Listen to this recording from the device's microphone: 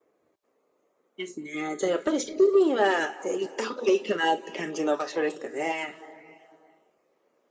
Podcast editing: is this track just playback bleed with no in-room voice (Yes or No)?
Yes